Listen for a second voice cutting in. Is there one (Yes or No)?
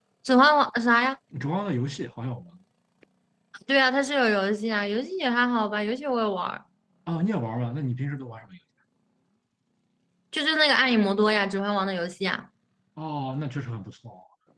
No